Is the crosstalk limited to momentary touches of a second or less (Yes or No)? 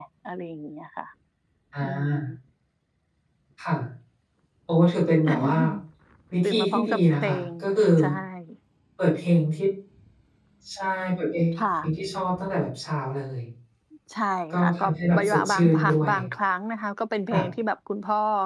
No